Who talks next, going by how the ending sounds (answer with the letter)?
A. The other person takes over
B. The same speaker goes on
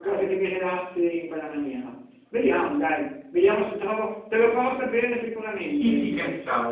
A